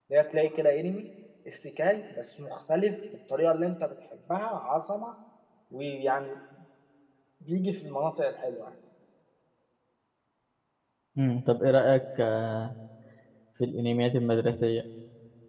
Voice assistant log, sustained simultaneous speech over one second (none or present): none